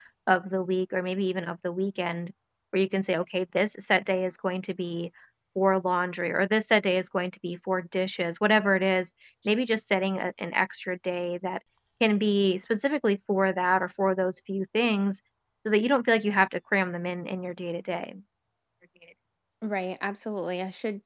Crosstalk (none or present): none